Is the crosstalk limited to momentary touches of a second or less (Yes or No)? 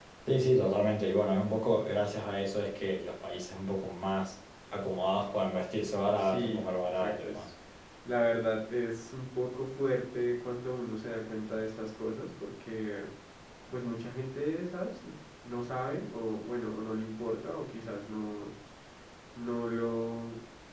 No